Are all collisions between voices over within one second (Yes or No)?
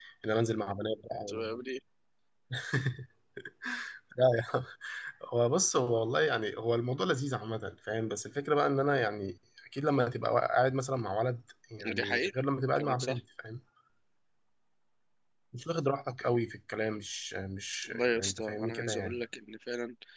No